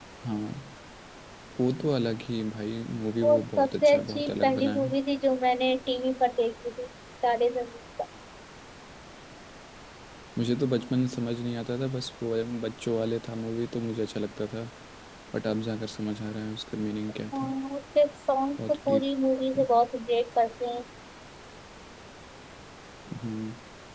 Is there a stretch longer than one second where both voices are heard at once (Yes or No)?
Yes